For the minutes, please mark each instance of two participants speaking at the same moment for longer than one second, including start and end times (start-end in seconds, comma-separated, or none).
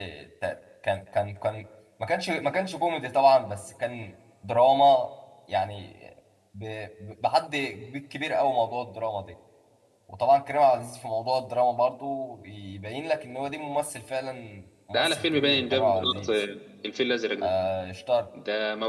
14.9-16.4